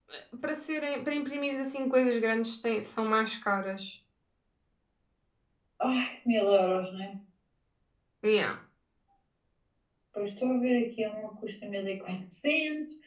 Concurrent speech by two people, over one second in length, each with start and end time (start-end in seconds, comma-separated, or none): none